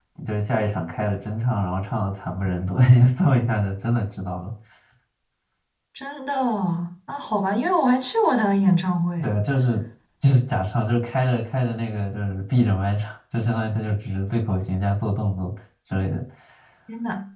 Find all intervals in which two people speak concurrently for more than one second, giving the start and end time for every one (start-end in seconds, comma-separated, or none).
none